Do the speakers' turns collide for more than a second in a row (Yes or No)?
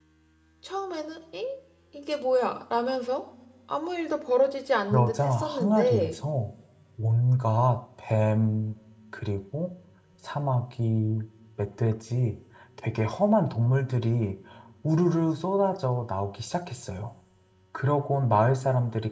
Yes